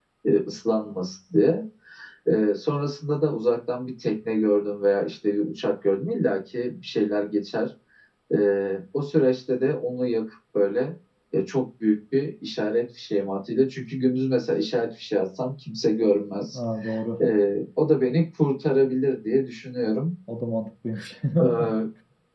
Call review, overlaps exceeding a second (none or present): none